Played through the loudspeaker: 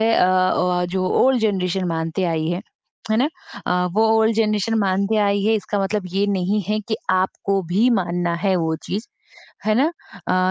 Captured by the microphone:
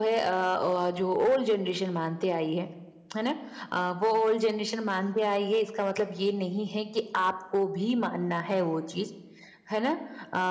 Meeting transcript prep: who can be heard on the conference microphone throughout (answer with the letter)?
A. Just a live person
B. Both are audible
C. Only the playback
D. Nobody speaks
C